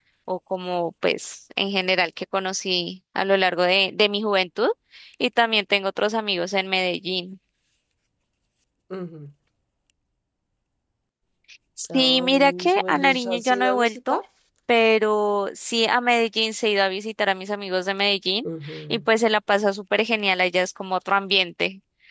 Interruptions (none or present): present